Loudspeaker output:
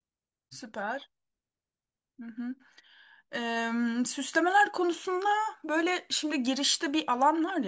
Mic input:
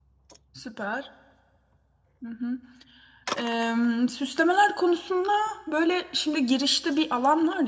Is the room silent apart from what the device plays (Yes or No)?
Yes